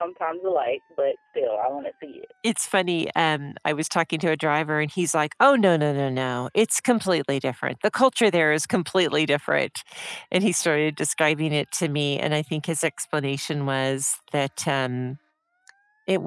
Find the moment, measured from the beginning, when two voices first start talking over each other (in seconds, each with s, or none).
none